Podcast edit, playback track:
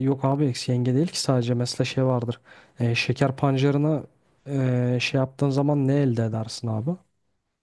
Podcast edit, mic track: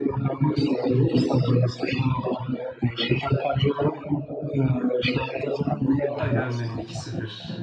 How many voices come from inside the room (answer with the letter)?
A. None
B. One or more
B